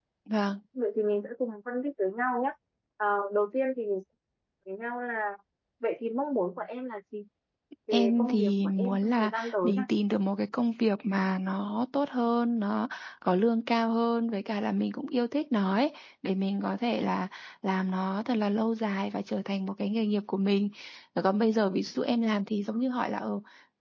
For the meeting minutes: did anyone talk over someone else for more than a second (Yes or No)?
Yes